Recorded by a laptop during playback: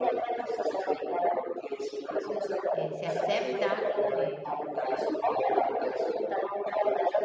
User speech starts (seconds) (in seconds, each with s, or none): 2.7 s